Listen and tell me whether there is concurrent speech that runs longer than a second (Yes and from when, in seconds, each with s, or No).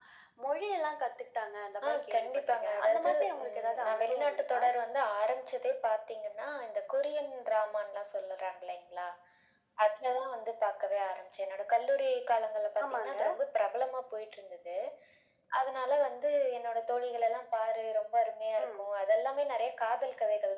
Yes, from 1.9 s